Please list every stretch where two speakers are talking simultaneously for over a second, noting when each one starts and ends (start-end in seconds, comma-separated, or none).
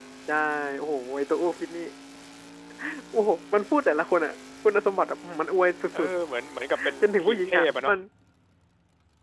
6.7-7.9